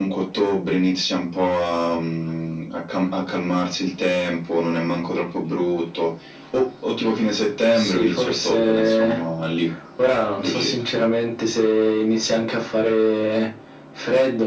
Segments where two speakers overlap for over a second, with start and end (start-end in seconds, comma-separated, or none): 7.7-9.2